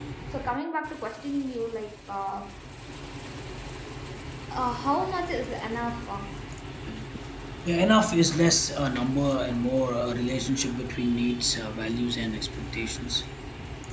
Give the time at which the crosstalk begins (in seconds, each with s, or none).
none